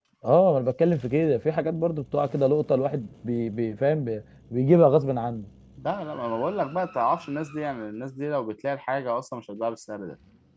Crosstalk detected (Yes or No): No